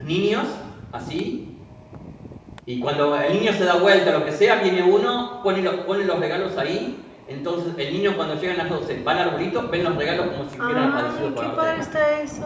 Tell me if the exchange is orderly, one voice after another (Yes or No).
No